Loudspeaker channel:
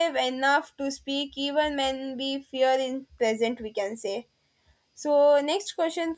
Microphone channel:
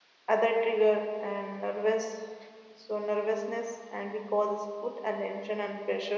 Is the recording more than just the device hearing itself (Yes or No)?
Yes